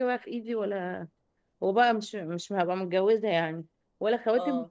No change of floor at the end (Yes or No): Yes